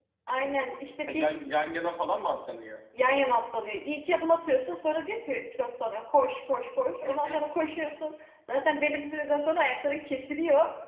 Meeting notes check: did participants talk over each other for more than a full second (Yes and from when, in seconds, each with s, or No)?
No